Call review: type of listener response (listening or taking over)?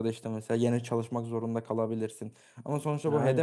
listening